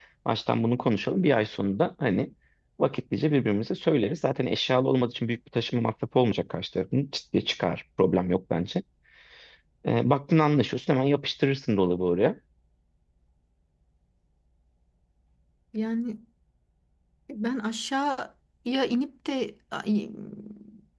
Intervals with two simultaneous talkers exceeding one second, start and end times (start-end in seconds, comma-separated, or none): none